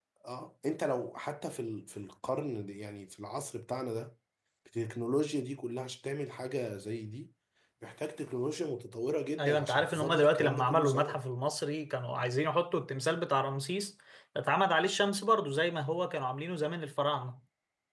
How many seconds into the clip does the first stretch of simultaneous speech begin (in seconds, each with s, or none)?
9.4 s